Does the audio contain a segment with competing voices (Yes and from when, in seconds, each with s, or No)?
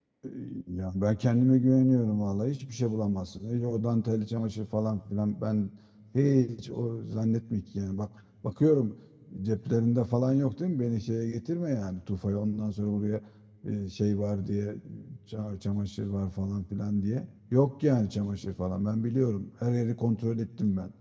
No